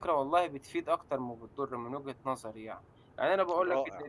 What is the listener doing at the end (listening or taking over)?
listening